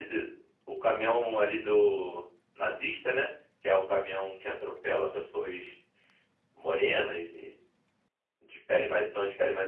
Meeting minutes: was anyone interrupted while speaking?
No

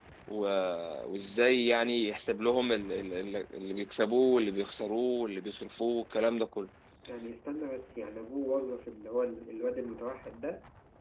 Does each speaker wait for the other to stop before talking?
Yes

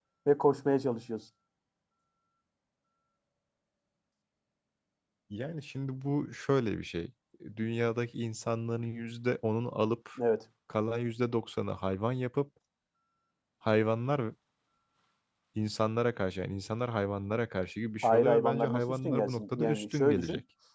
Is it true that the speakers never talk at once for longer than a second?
No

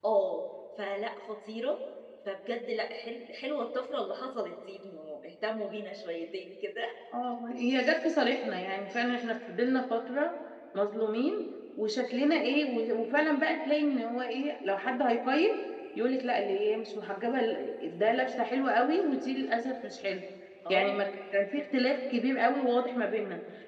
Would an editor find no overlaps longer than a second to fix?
Yes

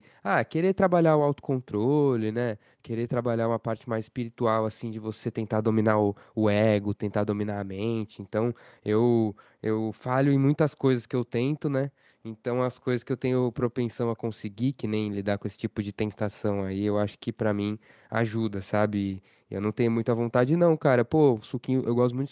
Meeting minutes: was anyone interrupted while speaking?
No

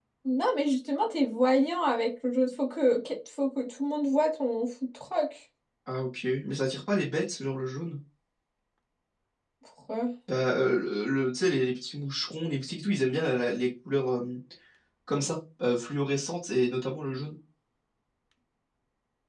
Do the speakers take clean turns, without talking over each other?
Yes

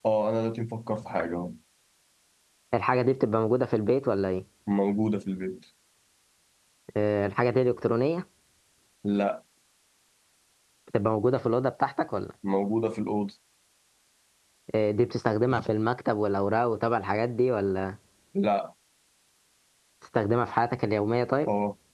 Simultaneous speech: No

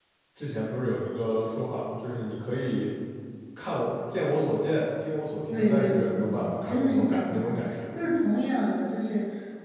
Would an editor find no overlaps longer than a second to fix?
No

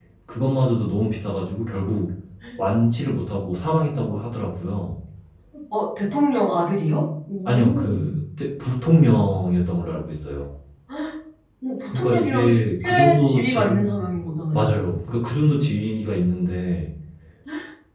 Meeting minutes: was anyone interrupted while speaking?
Yes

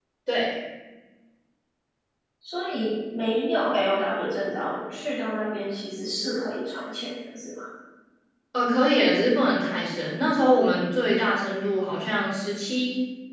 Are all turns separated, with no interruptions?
Yes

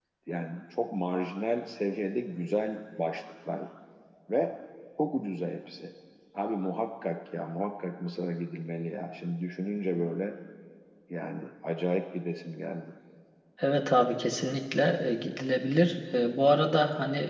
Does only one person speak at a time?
Yes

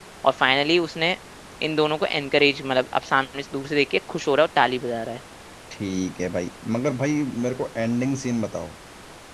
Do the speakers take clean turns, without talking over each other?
Yes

